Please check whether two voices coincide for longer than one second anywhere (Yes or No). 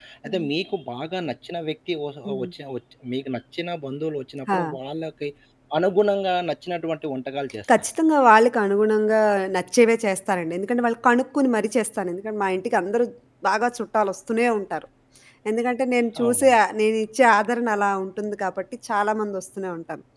No